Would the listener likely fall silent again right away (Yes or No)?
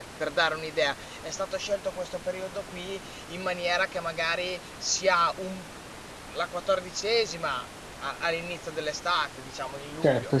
Yes